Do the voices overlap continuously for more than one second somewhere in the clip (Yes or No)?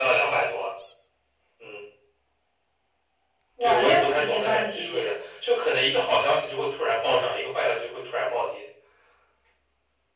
Yes